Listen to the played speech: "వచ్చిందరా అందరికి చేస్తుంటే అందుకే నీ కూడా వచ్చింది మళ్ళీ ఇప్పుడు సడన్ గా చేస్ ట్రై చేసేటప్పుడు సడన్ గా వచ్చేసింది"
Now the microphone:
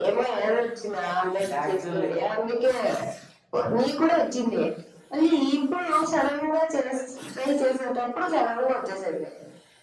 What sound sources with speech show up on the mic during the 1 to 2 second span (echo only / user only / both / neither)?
both